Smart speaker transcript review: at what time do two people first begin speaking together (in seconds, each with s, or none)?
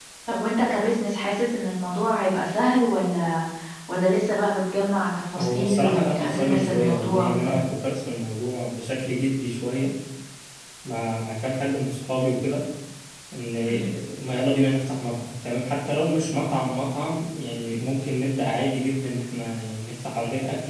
5.3 s